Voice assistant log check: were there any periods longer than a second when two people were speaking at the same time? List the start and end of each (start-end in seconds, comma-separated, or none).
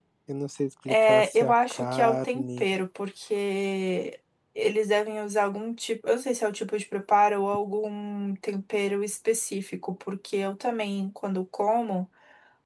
0.9-2.6